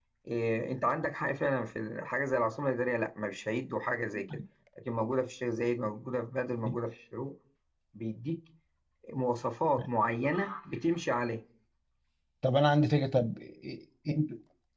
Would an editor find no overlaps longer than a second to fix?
Yes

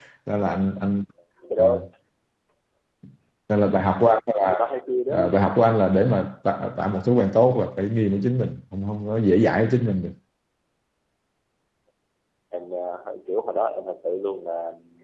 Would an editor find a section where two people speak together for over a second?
No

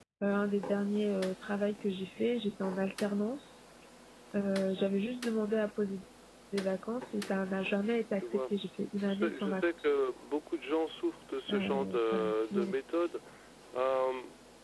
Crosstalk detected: Yes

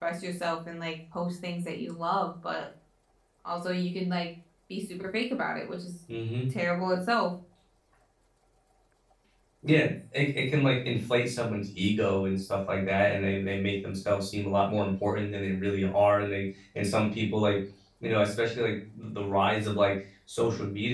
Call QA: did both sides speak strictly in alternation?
Yes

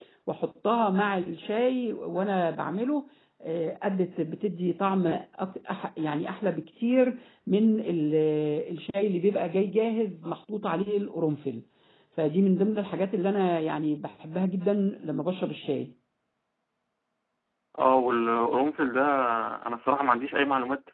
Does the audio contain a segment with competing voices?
No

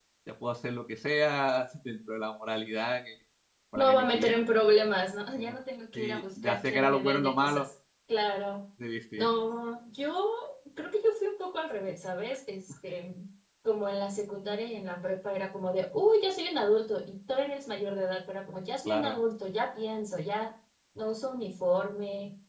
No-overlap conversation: No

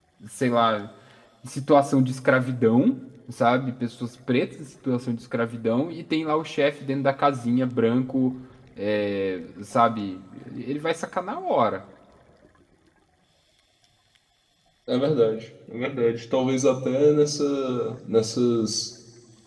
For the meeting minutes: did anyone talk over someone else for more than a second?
No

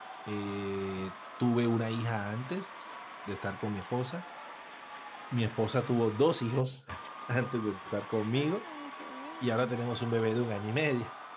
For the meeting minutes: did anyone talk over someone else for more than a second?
No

